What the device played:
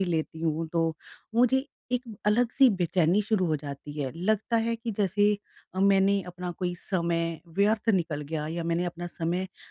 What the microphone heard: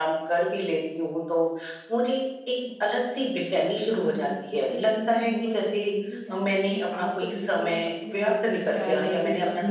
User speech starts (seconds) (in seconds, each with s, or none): 4.0 s